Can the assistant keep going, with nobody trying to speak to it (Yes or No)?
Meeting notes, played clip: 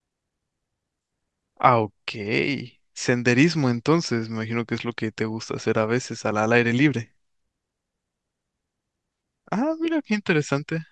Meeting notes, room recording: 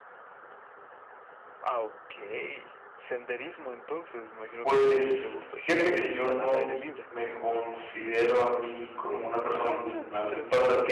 No